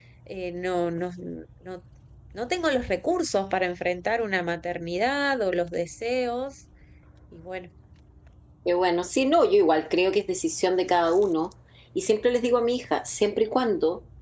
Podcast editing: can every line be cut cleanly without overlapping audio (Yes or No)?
Yes